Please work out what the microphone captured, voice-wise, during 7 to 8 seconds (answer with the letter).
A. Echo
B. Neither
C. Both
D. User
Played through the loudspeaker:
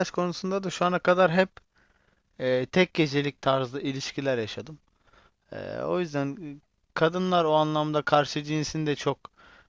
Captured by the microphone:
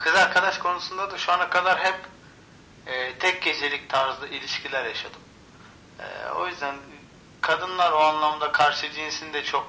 A